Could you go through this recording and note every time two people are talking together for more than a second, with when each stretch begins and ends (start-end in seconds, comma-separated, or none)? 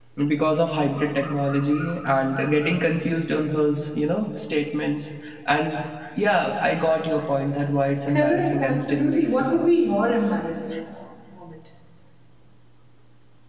8.1-9.7